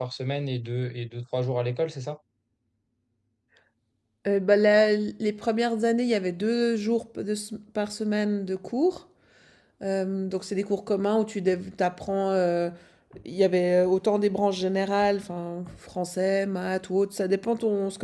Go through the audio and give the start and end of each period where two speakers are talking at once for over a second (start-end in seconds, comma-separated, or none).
none